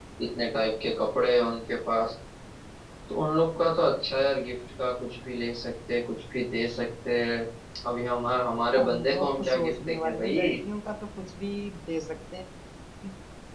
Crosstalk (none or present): present